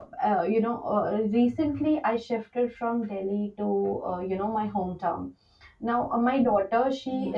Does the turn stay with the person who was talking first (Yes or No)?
Yes